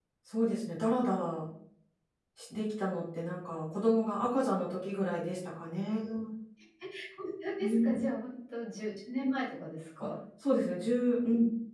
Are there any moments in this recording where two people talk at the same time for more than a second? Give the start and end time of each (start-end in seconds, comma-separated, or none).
none